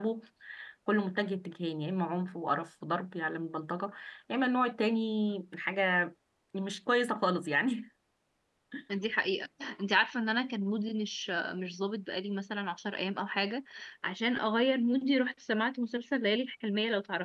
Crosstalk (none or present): none